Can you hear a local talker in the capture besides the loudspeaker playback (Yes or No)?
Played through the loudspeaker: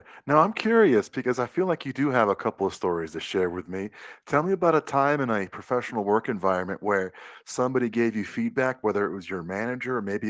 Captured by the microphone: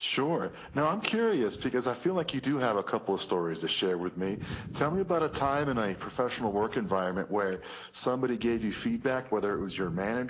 No